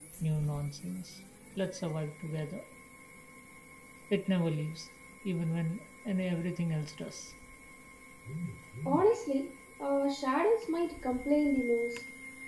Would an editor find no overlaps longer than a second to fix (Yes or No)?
Yes